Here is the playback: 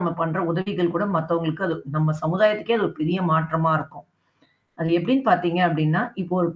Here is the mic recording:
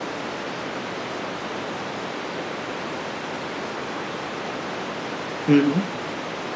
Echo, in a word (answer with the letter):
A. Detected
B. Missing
B